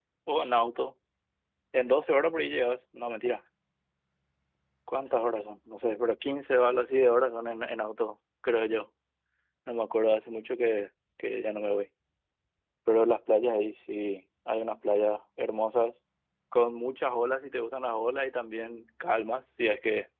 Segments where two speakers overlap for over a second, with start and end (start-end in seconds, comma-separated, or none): none